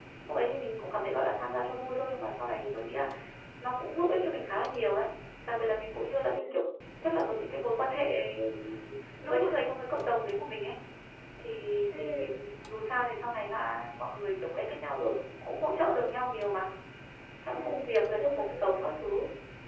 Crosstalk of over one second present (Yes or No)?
No